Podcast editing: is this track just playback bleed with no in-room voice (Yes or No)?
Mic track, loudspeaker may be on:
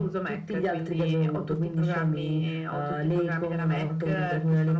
Yes